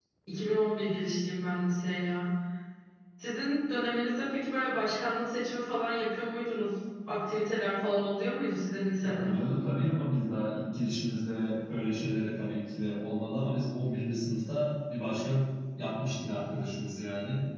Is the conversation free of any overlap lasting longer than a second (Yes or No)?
Yes